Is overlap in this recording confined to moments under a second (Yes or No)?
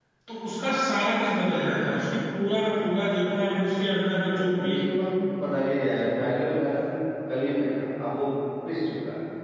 Yes